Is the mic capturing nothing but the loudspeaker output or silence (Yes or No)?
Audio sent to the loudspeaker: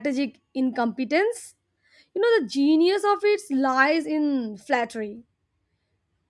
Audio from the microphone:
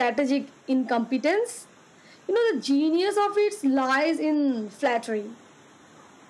Yes